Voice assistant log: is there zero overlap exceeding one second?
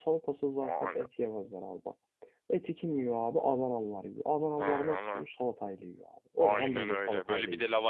No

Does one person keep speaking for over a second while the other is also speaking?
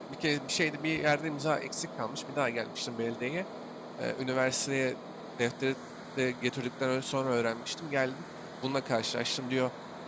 No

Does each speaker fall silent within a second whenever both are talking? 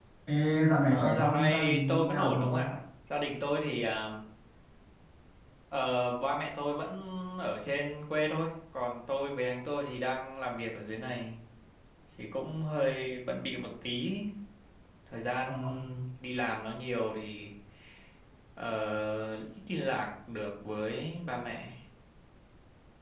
No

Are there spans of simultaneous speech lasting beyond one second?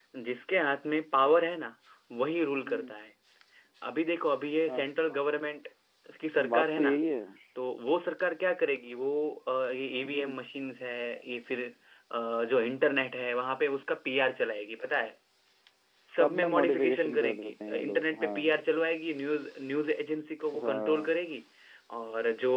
Yes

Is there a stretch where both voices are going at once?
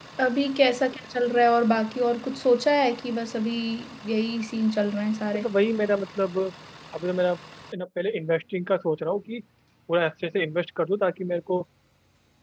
No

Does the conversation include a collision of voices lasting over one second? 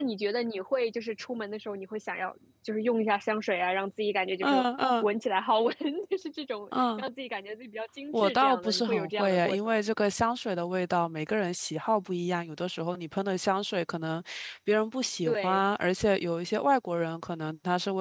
Yes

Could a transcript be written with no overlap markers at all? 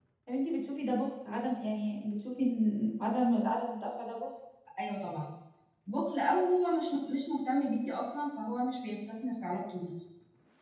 Yes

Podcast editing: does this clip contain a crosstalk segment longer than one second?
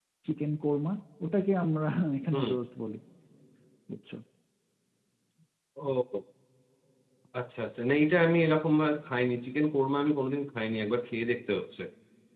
No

